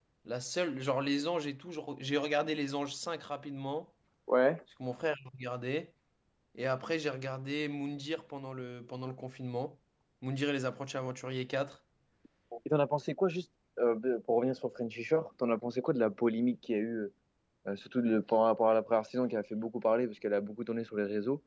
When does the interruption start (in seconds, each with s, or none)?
none